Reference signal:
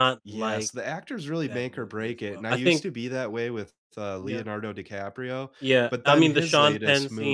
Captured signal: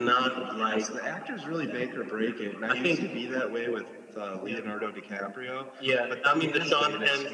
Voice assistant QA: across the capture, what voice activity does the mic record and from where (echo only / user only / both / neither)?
echo only